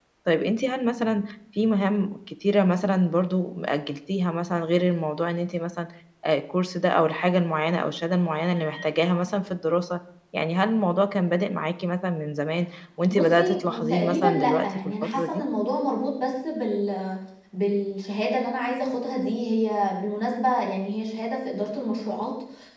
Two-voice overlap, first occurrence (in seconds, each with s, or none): 13.1 s